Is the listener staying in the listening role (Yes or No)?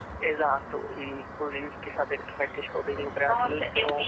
No